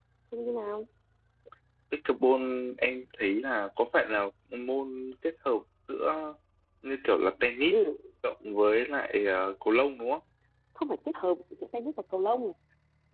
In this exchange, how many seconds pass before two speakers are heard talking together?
none

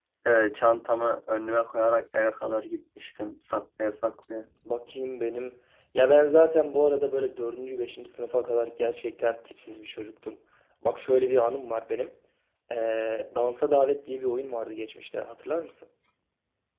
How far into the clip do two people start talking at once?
none

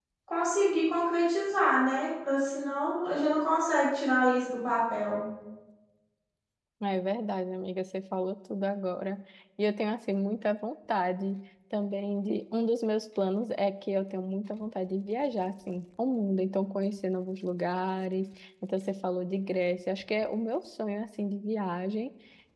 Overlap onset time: none

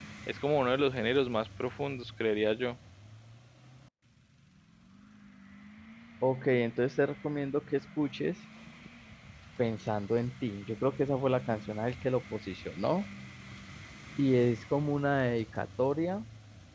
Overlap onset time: none

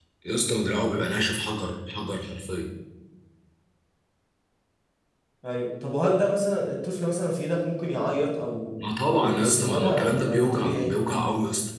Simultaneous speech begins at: 9.1 s

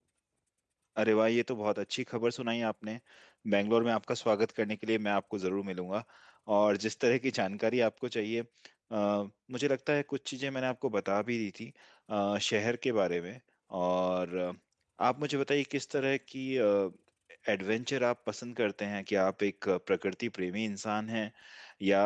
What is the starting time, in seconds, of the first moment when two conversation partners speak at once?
none

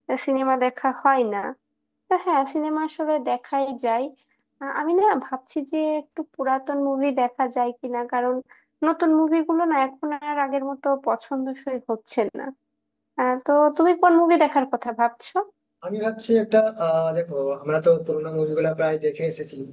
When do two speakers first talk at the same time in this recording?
none

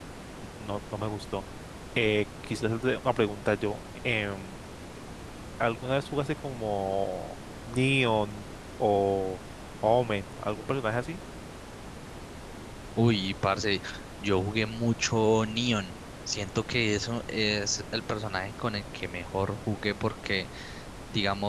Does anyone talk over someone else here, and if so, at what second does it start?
none

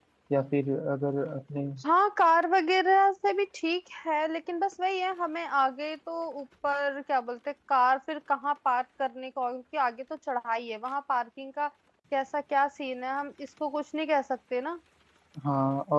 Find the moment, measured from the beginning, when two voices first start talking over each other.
none

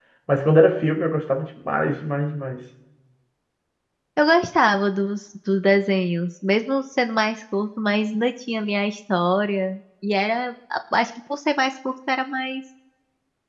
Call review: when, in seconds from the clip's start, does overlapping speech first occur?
none

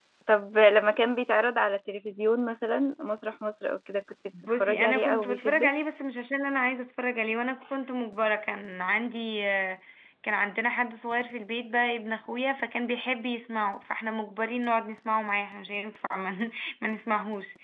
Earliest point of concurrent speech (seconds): 4.3 s

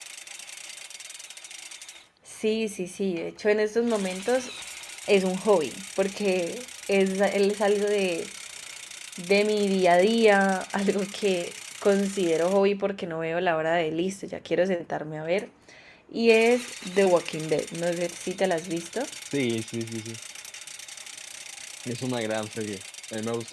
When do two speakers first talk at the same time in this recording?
none

